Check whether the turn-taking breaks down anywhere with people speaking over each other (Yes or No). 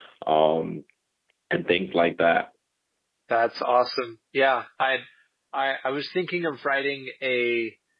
No